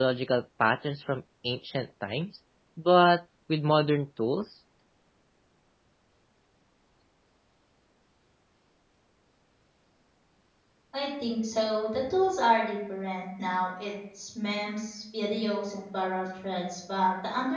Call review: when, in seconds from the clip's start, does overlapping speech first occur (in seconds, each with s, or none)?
none